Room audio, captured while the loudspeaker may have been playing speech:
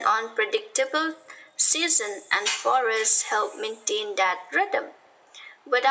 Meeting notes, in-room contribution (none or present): none